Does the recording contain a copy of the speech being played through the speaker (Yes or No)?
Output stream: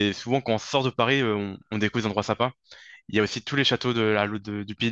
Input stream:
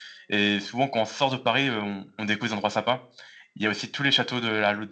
Yes